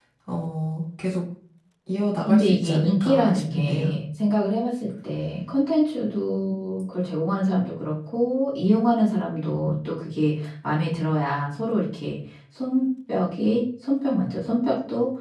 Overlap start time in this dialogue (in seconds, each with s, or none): 2.3 s